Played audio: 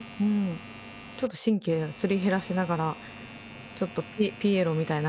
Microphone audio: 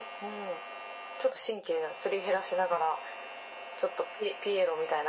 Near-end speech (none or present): none